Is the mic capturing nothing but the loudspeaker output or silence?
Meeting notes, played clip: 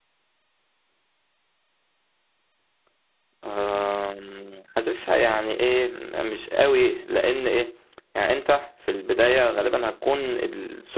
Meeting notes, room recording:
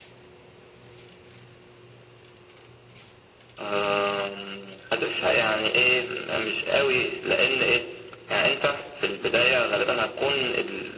Yes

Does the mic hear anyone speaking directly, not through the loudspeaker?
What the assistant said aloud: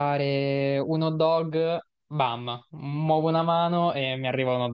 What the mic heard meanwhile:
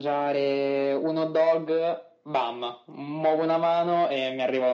No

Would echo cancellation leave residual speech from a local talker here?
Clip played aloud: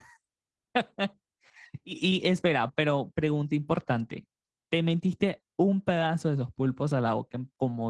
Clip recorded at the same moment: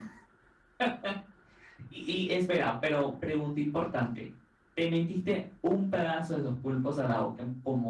No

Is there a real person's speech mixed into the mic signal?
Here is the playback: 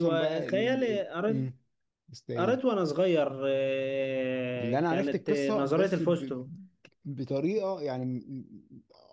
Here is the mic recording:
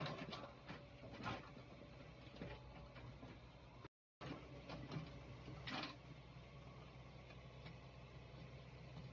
No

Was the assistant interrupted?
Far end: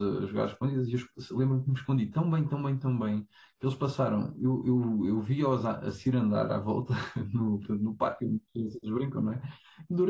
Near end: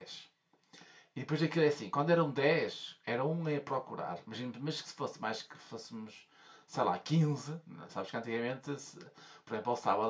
Yes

